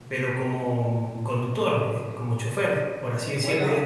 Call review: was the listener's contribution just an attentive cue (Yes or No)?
No